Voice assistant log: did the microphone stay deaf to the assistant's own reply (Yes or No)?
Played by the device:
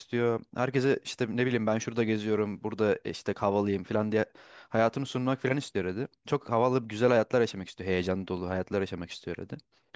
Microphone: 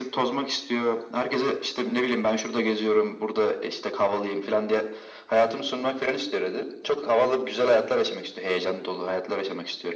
No